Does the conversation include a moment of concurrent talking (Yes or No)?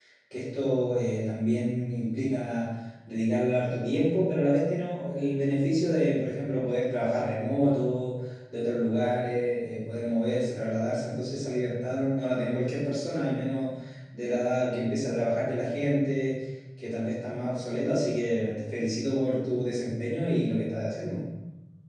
No